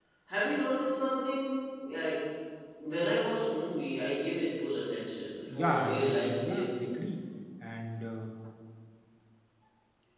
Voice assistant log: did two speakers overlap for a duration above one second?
Yes, from 5.5 s

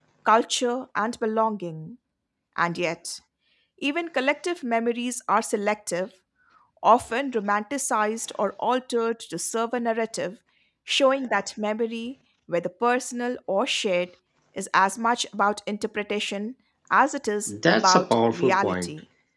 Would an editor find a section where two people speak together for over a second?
Yes, from 17.5 s

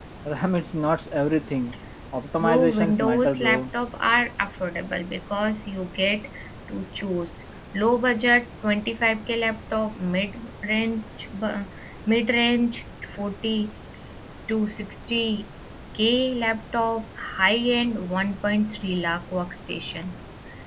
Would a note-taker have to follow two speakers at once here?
Yes, from 2.4 s

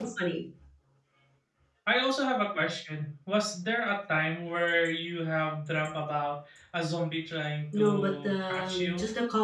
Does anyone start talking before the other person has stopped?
Yes, from 7.7 s

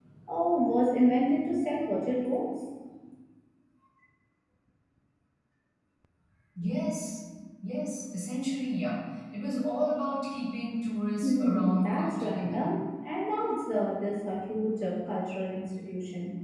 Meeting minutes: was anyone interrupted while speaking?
Yes, from 11.2 s

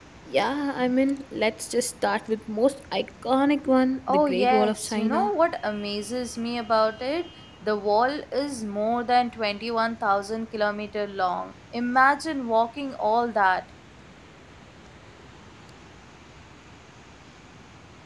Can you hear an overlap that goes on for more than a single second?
Yes, from 4.1 s

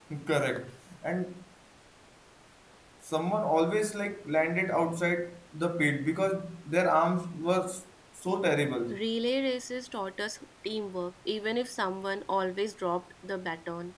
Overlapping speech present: No

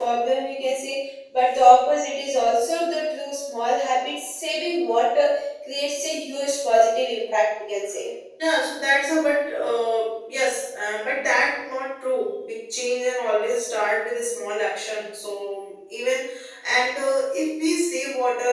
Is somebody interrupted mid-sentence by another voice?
No

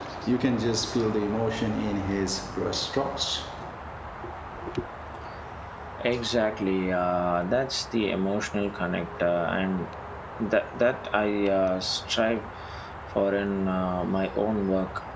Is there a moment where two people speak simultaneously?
No

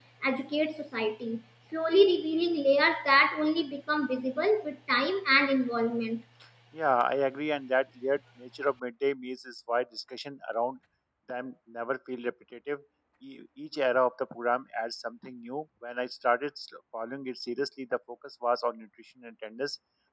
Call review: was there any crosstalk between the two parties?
No

